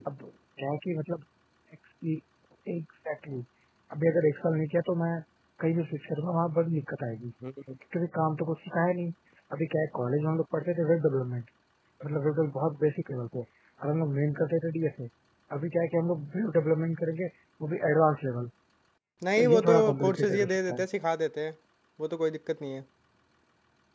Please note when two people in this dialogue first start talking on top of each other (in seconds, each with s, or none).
19.4 s